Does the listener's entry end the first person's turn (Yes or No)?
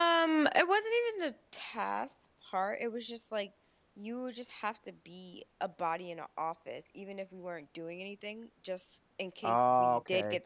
No